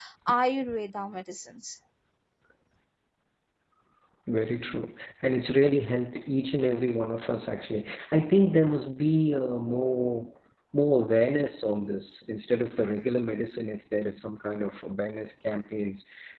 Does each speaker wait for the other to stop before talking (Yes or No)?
Yes